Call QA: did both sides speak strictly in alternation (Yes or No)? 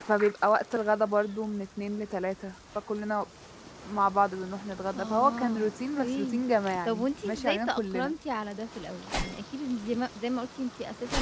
No